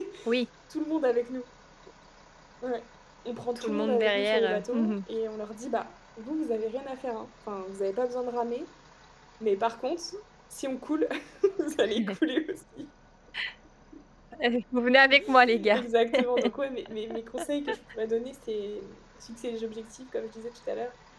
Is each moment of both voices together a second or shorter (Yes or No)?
No